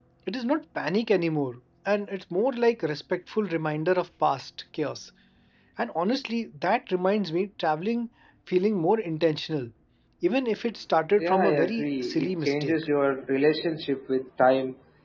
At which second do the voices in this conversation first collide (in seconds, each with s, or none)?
11.2 s